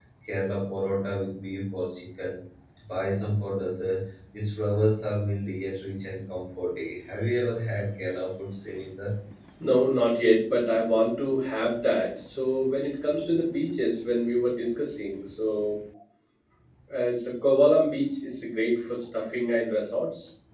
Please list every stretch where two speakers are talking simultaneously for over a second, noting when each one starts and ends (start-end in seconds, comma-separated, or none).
none